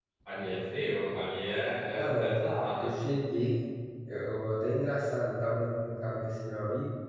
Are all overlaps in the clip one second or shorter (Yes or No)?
Yes